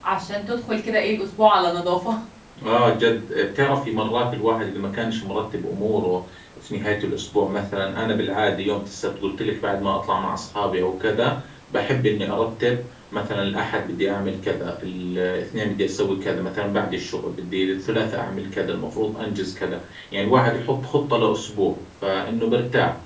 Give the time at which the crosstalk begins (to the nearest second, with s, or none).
none